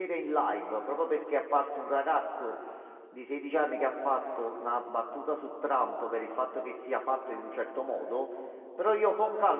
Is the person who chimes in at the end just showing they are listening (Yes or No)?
Yes